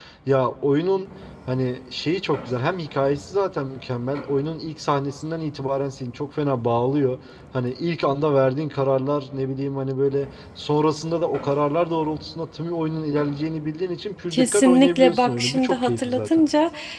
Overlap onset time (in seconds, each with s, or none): 14.3 s